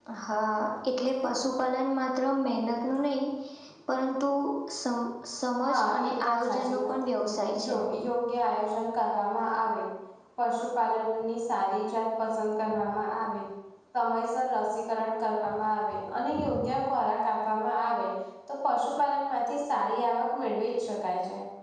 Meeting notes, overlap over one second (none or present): present